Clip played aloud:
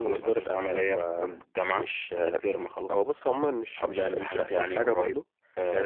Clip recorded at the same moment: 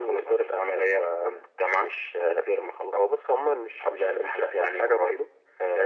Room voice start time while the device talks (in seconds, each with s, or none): none